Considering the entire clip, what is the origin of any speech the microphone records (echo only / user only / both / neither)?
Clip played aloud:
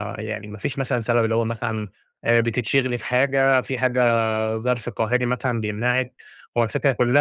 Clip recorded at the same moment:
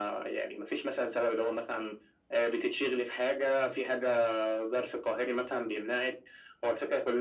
echo only